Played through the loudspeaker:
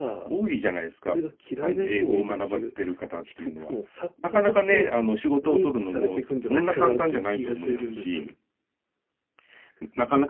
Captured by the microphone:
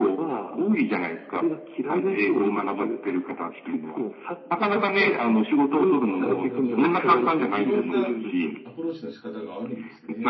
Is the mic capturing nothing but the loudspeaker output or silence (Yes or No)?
No